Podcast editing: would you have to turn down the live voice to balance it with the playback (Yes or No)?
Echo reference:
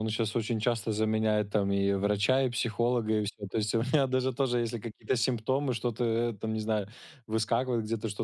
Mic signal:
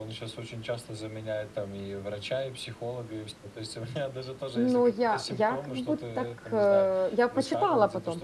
Yes